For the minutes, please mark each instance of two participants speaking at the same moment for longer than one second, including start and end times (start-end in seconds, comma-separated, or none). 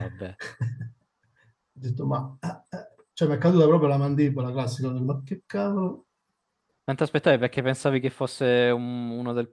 none